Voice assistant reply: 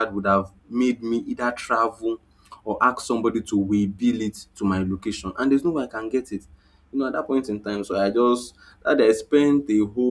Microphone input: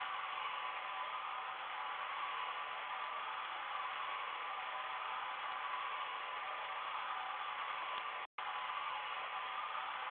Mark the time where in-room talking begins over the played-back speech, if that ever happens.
none

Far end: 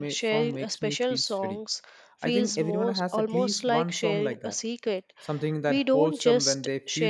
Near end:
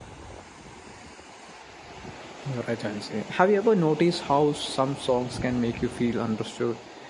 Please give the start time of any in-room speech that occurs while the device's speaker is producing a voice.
2 s

